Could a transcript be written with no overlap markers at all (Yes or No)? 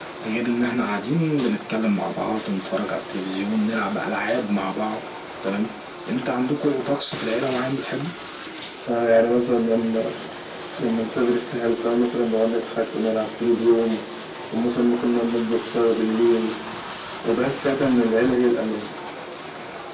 Yes